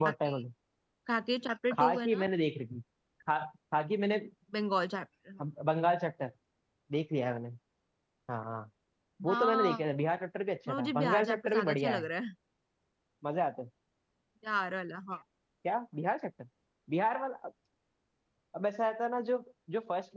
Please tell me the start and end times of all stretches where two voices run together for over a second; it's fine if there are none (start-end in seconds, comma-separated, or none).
10.7-12.1